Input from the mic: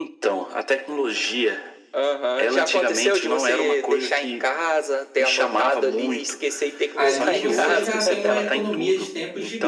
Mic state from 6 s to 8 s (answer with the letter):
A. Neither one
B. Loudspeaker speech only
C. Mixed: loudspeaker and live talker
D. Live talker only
C